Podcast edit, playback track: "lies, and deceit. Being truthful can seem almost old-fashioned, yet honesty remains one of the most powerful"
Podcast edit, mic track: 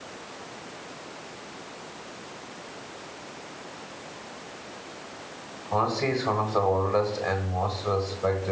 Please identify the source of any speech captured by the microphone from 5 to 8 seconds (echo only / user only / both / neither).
user only